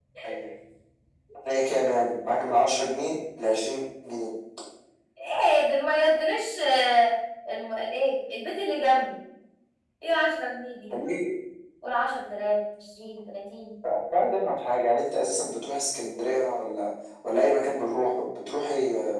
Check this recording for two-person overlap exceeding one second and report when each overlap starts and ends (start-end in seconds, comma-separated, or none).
none